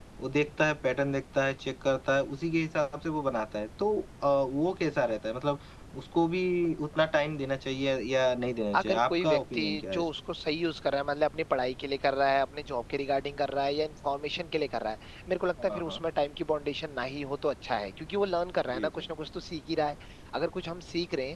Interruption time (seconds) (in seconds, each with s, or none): 8.8 s